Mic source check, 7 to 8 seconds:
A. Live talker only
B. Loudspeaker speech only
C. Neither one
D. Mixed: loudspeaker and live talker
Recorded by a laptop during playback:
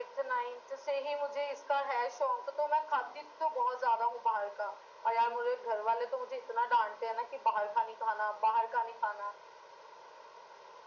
B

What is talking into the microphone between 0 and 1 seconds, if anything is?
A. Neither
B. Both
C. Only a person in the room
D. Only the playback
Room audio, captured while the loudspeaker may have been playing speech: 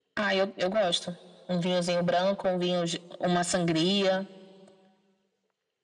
D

